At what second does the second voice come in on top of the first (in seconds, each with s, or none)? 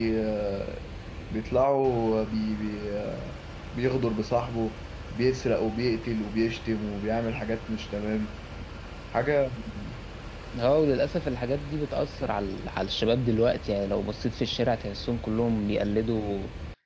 none